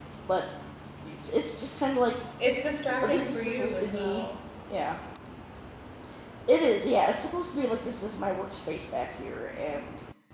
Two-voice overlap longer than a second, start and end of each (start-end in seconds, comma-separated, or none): 3.0-4.3